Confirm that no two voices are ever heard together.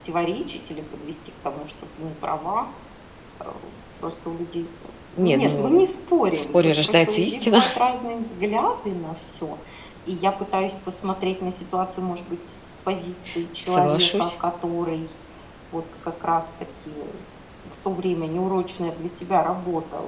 No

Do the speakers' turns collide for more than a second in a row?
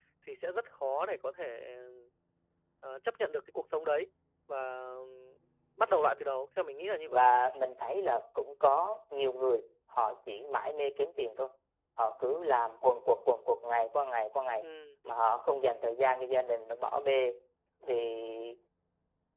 No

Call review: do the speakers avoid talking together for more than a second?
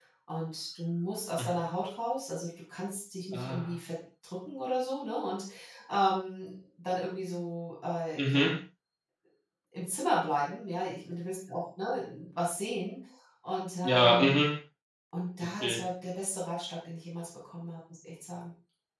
Yes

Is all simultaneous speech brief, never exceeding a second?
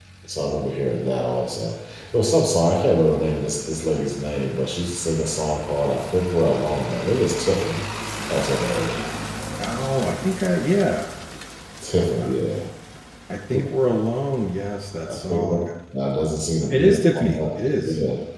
No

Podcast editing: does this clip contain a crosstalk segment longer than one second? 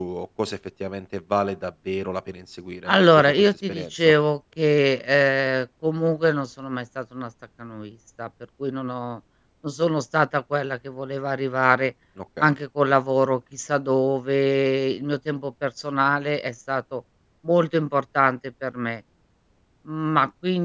Yes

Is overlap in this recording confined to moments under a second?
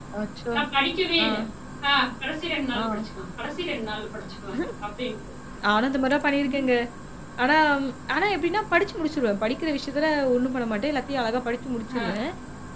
Yes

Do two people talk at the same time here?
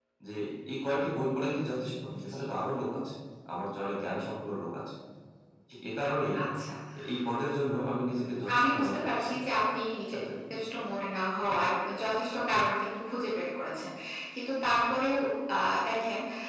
Yes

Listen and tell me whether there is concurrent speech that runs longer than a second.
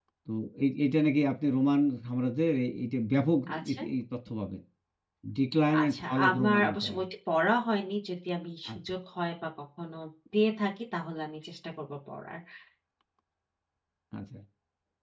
Yes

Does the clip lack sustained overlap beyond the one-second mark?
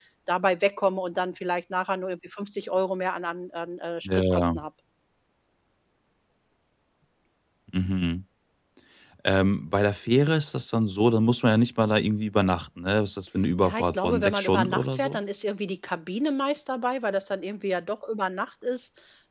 No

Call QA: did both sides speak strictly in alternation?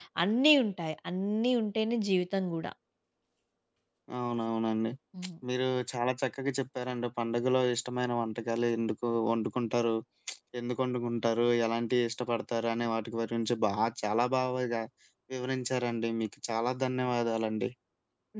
Yes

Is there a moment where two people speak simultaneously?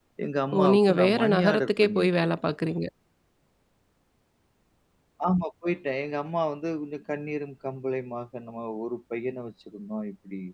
Yes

